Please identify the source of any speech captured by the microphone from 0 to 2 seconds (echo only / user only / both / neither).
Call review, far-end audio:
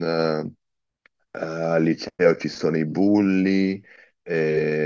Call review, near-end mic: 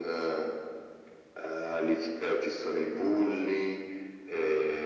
echo only